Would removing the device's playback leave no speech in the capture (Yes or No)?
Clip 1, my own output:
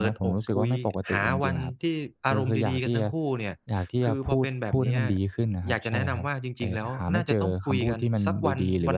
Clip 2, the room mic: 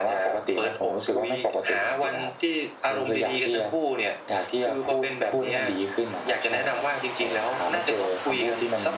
Yes